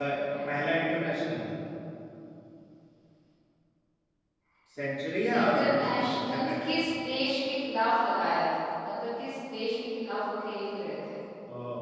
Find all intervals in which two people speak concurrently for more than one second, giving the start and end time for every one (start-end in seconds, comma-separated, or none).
5.4-6.7